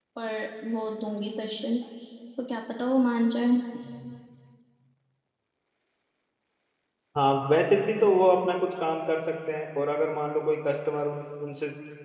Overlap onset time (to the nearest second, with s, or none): none